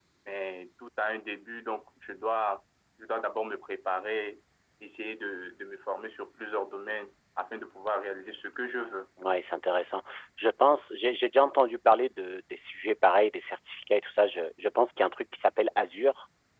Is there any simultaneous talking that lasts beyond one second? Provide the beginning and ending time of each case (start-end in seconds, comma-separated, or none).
none